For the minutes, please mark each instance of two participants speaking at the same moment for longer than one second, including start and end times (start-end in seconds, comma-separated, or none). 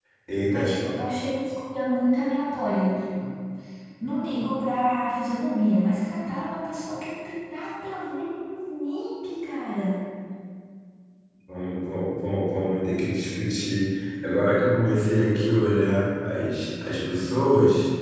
none